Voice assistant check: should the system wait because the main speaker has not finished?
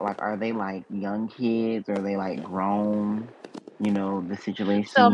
No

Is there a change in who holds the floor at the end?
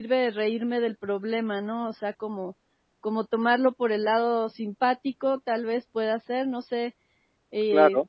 Yes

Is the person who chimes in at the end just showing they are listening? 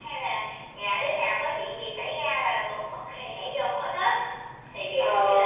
No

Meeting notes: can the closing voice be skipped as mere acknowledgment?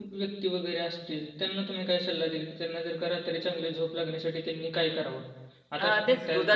No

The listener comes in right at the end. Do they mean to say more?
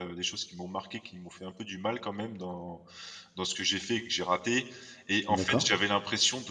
No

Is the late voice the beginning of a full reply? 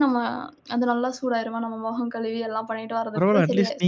Yes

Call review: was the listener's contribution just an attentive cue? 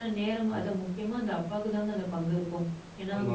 Yes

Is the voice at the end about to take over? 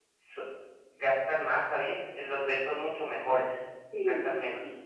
Yes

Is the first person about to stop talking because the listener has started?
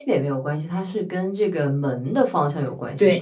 Yes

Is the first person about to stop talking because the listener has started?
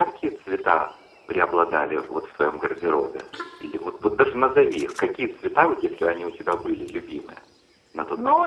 Yes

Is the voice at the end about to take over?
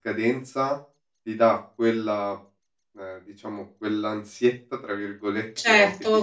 Yes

